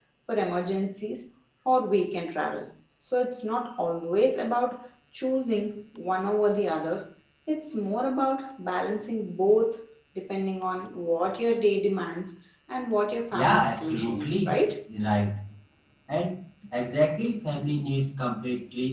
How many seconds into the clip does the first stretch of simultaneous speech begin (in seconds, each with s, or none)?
13.3 s